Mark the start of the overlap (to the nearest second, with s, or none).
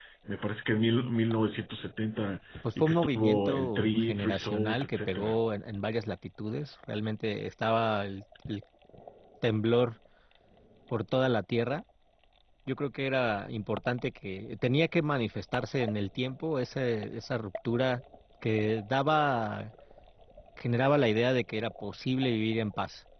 3 s